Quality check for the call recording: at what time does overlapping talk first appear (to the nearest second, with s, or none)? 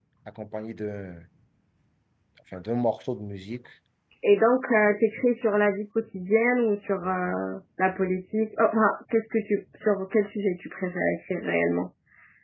none